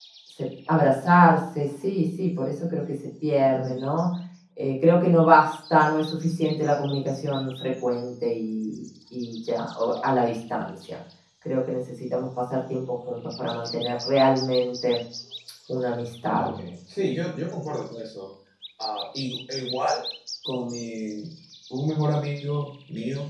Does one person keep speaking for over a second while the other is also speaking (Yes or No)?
No